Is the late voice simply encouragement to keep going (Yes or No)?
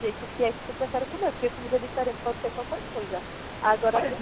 Yes